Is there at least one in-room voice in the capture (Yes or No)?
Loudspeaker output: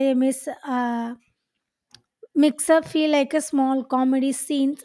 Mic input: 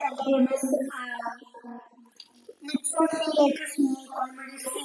No